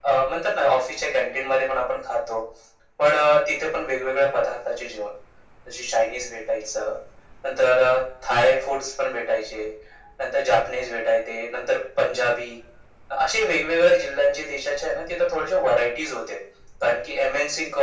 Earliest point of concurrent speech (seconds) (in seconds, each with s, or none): none